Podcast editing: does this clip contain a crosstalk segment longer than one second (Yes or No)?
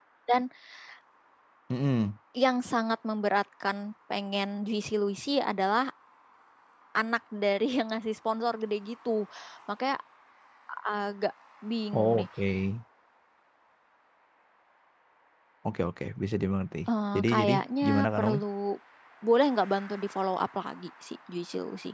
Yes